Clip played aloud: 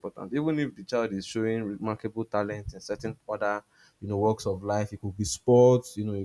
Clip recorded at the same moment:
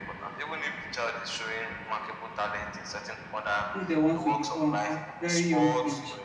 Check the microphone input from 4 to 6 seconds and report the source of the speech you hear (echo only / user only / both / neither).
both